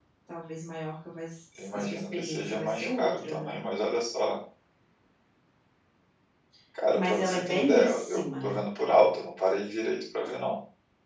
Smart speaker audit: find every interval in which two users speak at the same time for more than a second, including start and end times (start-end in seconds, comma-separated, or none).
1.6-3.6, 6.9-8.6